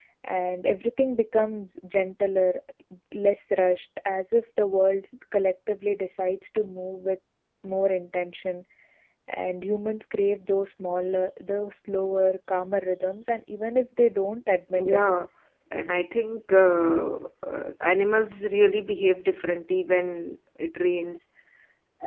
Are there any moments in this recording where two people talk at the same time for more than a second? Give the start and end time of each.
none

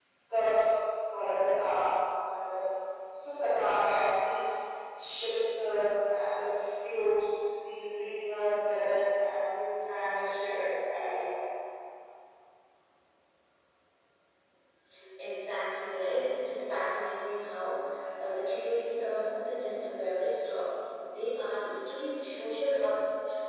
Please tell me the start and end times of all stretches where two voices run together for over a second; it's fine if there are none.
none

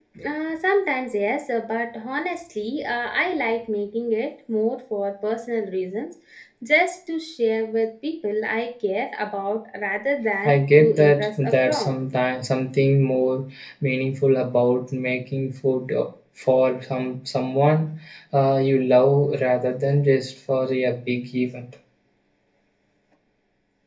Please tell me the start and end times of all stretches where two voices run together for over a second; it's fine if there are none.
10.4-11.9

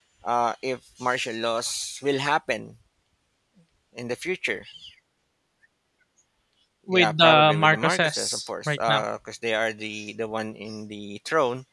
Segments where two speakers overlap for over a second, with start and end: 6.9-9.0

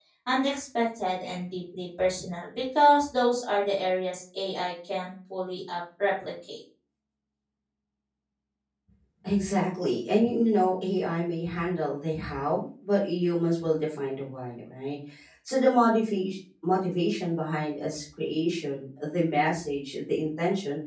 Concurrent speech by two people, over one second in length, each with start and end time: none

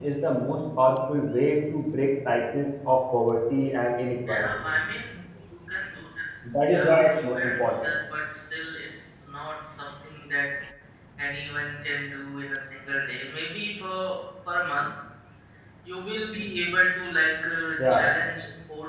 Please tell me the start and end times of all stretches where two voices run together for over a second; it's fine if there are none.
6.7-7.9

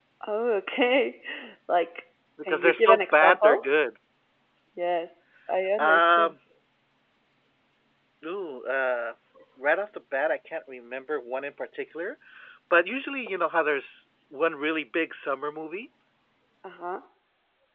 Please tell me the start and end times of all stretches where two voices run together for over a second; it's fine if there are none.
2.5-3.7

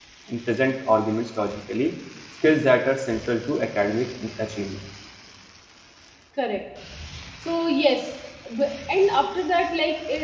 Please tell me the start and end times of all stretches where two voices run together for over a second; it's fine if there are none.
none

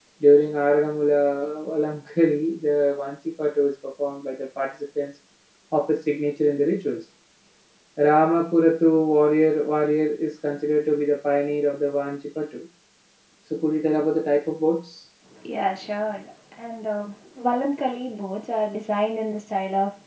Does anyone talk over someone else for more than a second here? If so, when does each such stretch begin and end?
none

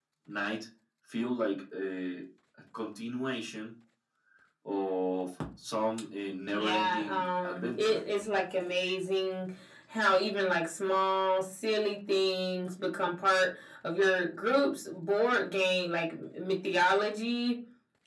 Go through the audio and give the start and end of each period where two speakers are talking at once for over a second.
6.5-8.0

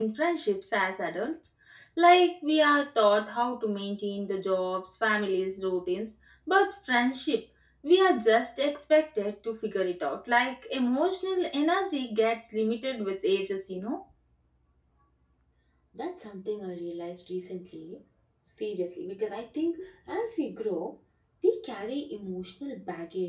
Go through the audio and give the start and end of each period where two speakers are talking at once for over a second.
none

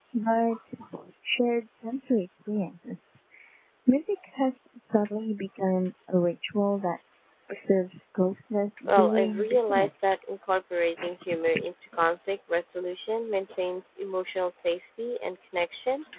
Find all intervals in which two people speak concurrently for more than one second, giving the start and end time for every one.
8.8-10.1

